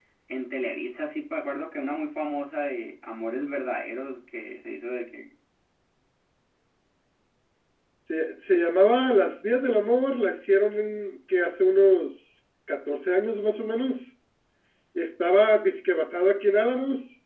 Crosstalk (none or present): none